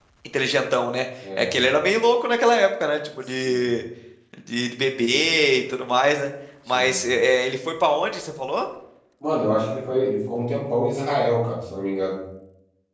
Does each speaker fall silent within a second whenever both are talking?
Yes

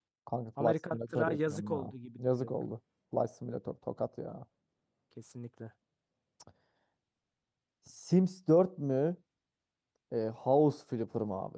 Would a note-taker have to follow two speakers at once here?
Yes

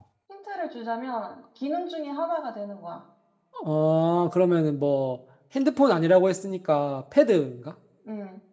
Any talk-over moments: No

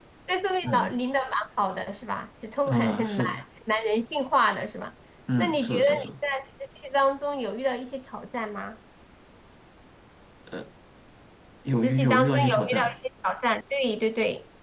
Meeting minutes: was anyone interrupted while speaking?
Yes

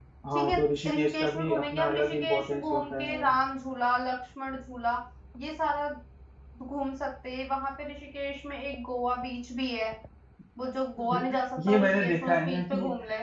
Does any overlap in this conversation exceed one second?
Yes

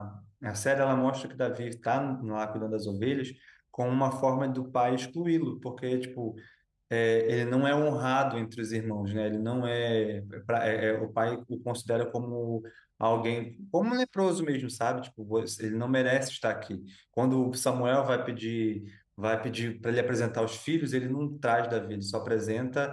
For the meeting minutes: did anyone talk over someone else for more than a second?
No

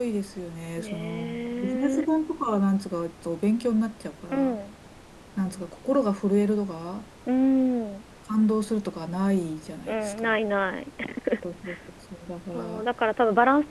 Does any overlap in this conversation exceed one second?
Yes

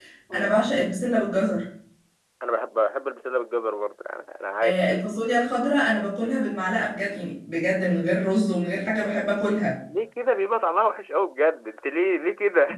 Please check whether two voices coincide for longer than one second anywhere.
No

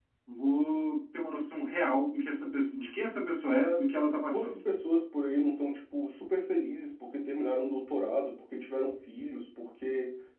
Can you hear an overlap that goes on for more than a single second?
No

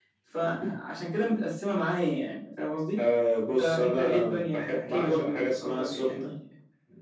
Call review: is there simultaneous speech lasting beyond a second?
Yes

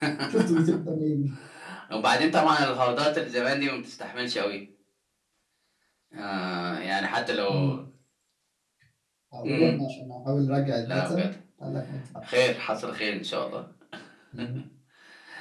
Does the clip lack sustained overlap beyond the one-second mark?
Yes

